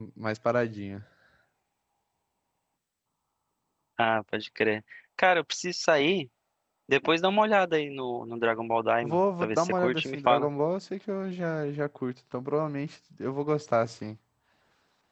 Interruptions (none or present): present